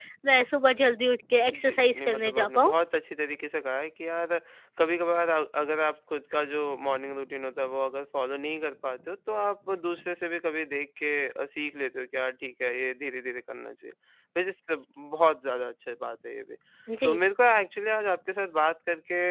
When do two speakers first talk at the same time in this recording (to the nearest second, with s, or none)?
1 s